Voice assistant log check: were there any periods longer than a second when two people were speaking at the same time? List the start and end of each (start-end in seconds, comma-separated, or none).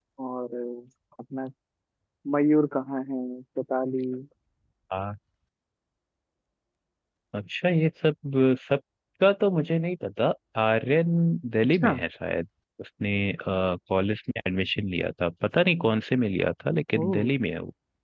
none